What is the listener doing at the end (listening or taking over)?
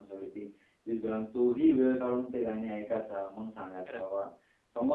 listening